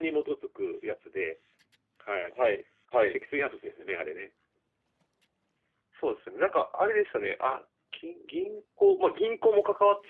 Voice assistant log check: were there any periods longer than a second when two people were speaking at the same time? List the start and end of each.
none

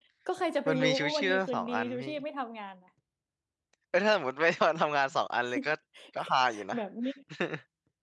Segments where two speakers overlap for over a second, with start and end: 0.7-2.1

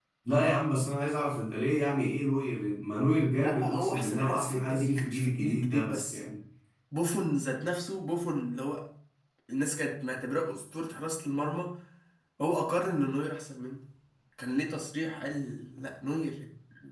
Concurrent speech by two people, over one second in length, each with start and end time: 3.4-6.2

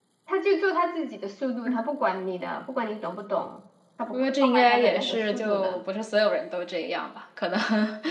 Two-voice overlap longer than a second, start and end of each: 4.1-5.8

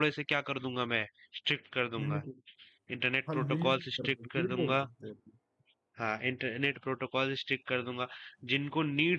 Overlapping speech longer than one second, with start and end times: 3.3-4.8

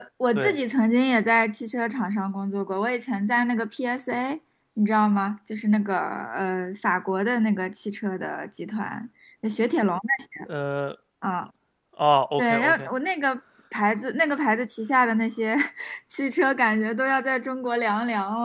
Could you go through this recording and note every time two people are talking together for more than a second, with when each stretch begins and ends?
none

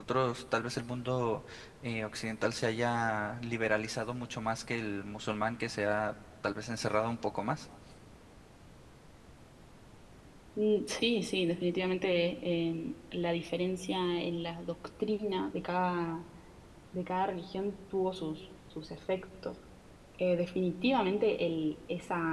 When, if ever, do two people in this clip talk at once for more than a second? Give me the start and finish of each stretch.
none

